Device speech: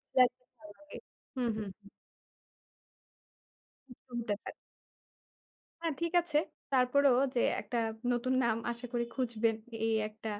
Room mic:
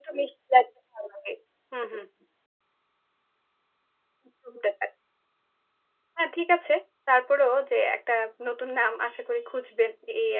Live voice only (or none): none